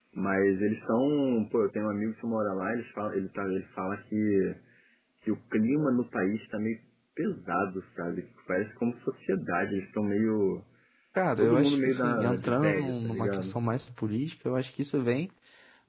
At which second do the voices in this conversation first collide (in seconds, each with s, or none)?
11.4 s